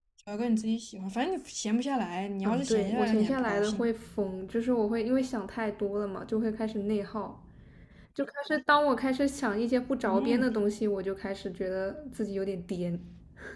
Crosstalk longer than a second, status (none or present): present